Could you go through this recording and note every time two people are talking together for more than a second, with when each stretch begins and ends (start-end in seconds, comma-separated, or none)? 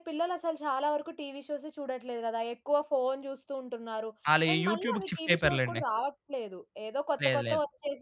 4.5-5.8